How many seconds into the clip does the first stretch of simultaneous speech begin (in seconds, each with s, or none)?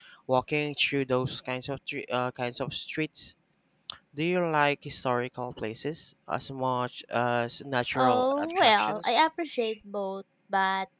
7.9 s